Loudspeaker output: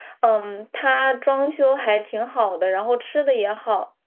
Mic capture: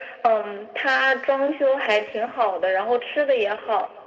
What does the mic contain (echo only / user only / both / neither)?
echo only